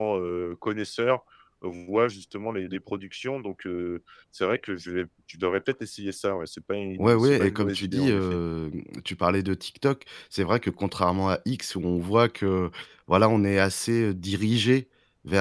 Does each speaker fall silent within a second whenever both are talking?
No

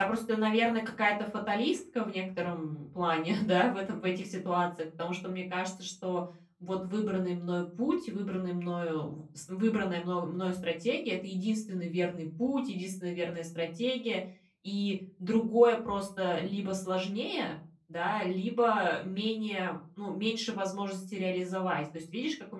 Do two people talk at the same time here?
No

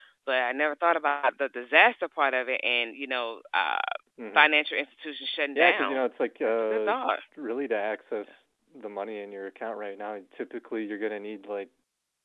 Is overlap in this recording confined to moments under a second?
Yes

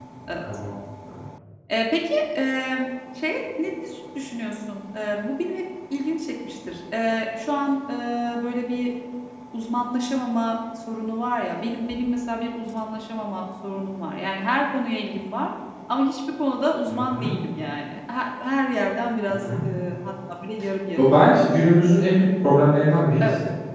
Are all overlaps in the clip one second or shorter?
Yes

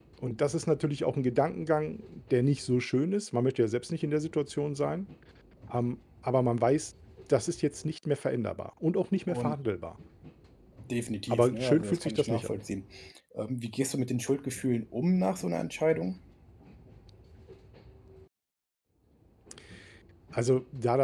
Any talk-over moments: Yes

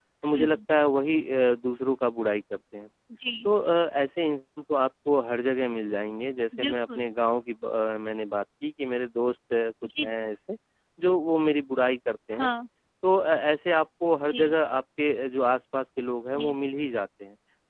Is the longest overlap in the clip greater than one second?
No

